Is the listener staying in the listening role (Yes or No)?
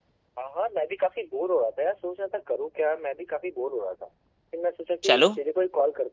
Yes